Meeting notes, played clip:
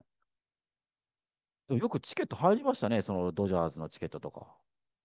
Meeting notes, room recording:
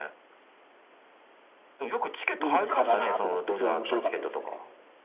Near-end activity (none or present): present